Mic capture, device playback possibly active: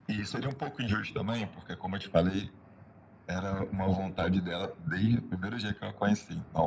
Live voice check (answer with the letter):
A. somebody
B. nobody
B